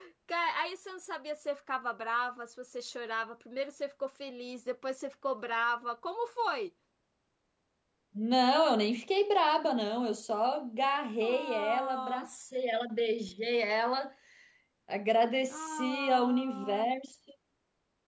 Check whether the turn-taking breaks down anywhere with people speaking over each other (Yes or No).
Yes